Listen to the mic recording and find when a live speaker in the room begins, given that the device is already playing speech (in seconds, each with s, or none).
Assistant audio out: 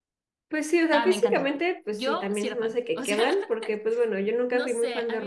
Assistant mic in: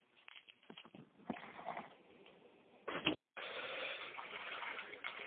none